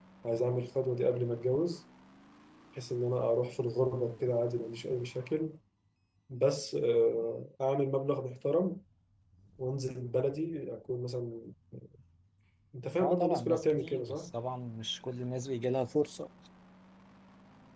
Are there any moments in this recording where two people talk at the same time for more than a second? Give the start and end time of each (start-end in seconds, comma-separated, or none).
13.0-14.3